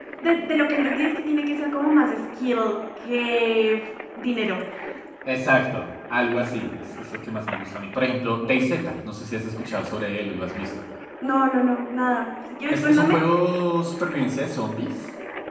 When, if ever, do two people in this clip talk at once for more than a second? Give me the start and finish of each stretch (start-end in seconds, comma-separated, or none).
none